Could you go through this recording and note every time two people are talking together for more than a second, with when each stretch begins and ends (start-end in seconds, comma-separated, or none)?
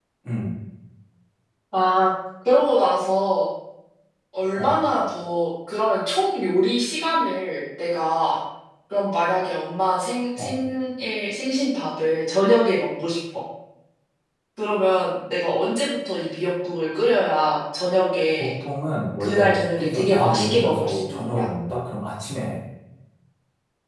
19.2-21.5